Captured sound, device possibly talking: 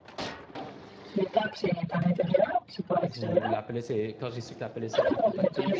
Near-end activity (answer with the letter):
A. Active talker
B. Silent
A